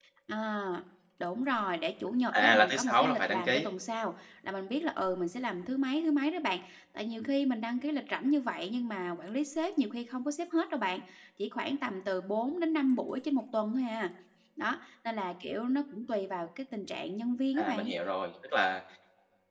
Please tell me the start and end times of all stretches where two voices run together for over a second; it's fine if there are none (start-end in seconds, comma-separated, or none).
2.4-3.7